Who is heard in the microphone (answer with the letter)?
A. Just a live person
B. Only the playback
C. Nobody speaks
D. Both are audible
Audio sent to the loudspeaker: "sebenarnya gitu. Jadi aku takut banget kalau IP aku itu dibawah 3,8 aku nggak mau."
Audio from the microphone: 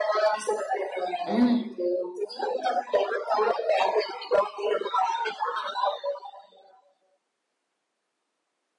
D